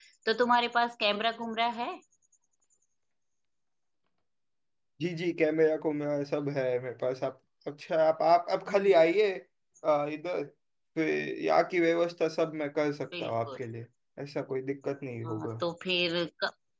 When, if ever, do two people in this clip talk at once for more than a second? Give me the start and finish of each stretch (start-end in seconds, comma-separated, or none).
none